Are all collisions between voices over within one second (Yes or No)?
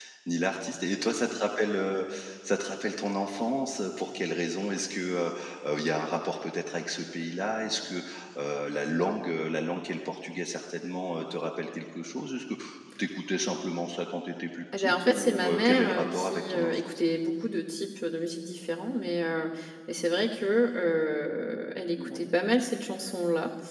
No